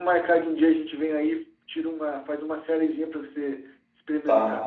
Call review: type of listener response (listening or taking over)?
taking over